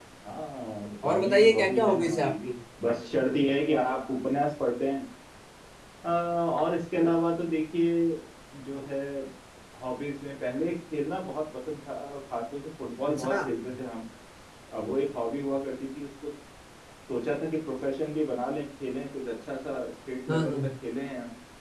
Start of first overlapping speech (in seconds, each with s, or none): 1.1 s